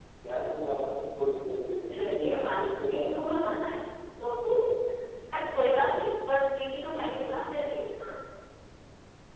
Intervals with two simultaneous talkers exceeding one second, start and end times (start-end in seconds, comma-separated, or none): 1.9-3.3